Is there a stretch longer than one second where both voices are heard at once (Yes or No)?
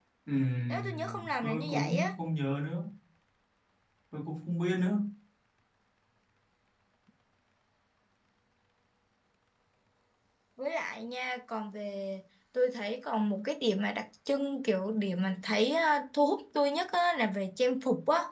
Yes